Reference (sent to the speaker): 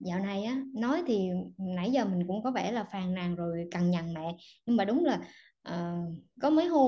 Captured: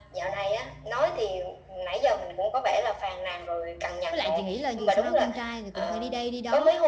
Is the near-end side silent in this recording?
No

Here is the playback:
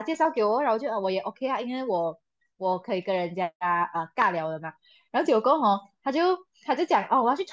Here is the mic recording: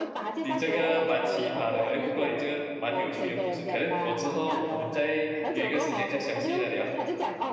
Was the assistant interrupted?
Yes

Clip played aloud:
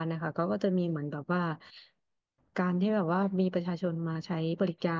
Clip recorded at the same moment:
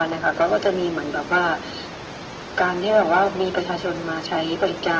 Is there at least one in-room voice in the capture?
No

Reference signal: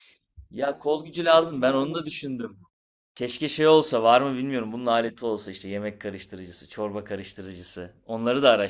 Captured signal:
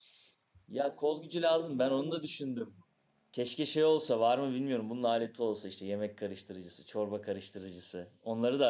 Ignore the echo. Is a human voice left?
No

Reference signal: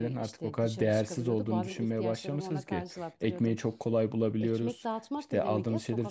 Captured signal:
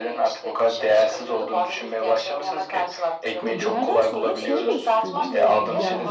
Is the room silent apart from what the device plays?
No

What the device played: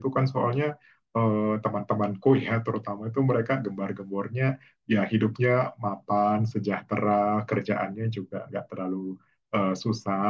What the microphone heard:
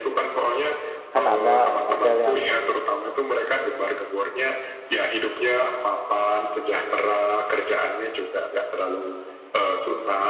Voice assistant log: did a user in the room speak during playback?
Yes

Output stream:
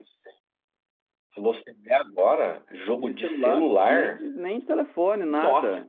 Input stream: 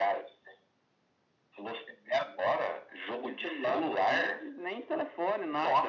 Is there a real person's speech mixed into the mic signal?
No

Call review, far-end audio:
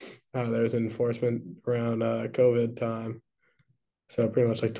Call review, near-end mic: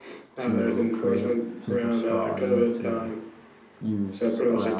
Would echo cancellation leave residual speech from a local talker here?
Yes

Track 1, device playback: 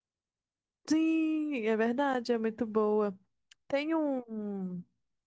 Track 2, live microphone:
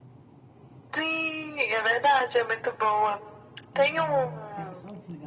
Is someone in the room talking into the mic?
Yes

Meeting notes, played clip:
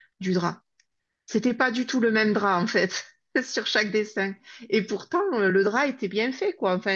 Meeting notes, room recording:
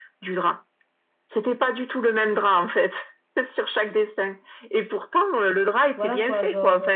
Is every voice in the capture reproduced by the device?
No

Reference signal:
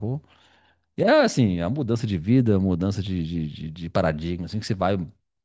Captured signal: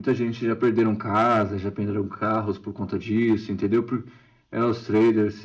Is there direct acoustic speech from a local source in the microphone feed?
Yes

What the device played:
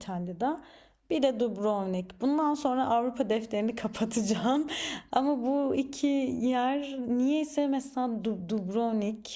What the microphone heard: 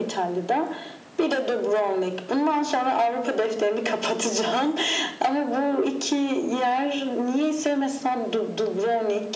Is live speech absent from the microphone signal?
Yes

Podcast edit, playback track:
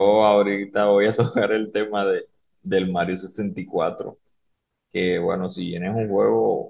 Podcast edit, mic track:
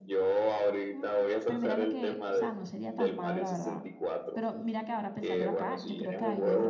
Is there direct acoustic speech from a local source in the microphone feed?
Yes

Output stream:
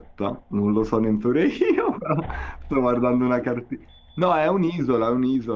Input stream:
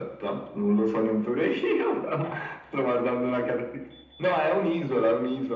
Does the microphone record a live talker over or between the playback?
No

